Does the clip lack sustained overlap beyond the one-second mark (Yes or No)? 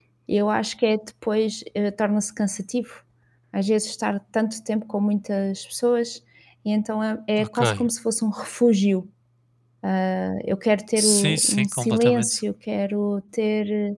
No